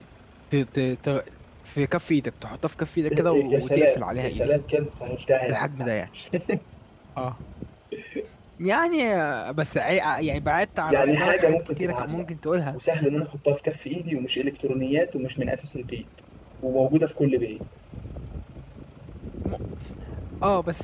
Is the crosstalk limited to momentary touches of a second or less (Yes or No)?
No